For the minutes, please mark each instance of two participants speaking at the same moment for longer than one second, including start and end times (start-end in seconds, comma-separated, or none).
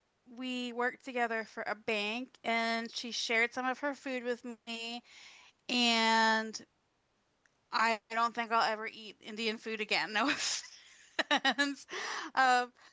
none